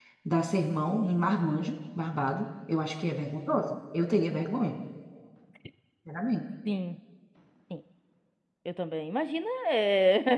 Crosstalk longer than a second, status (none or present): none